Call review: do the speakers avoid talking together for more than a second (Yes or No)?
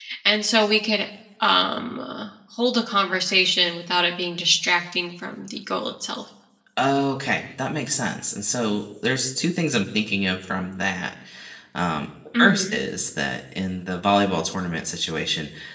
Yes